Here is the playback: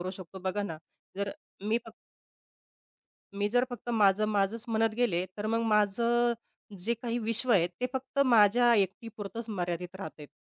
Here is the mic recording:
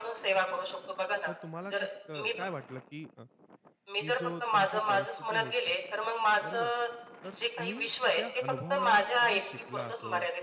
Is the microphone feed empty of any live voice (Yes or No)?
No